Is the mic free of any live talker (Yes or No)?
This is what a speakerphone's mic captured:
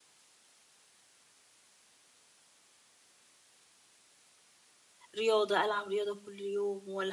No